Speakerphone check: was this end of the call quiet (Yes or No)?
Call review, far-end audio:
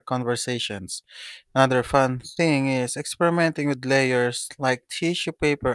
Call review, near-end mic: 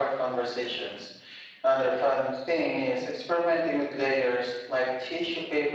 Yes